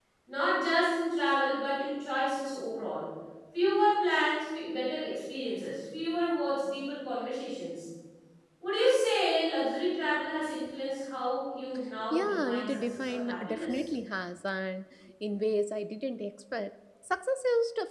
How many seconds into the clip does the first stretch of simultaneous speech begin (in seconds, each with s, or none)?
12.1 s